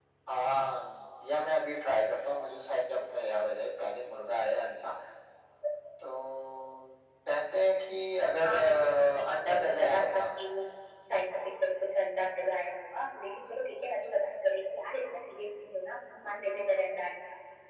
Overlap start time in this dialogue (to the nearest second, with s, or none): 8 s